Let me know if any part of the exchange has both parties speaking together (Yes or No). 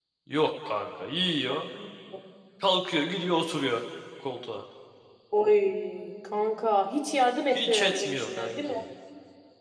Yes